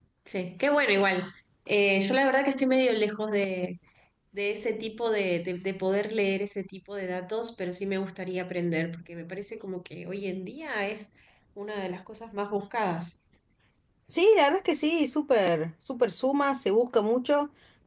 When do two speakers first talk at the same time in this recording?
none

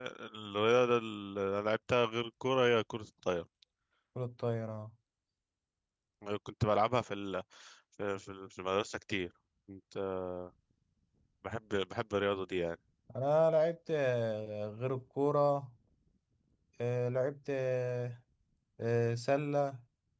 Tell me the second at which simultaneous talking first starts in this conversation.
none

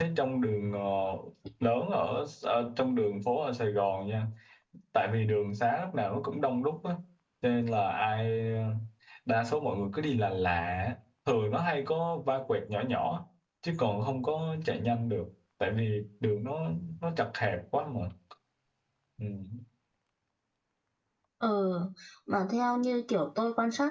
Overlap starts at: none

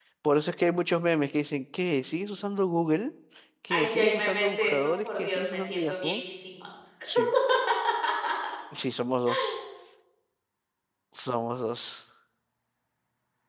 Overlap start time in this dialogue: 3.7 s

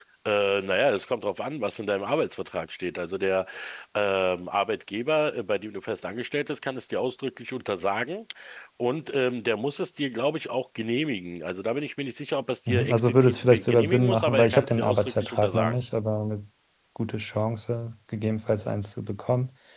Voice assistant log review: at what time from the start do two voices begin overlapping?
12.7 s

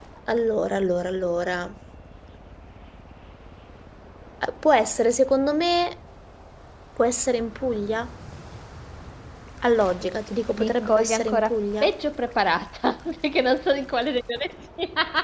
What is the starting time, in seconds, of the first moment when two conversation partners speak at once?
10.5 s

